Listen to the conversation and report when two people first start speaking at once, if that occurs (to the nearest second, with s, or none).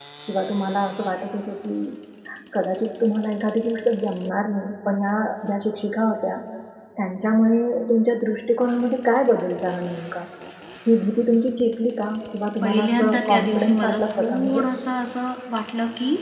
13 s